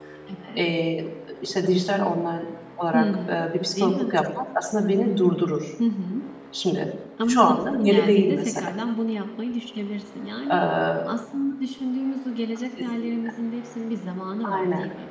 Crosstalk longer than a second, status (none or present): present